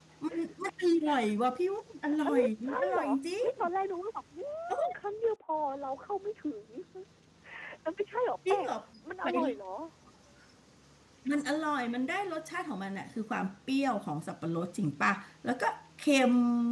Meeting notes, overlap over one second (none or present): present